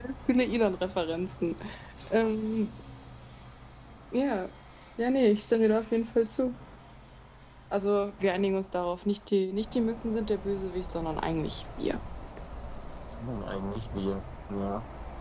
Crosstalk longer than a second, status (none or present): none